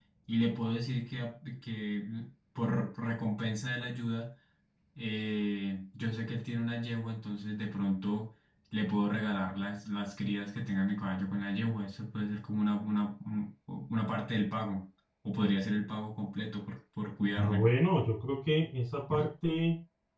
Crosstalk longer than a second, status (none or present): none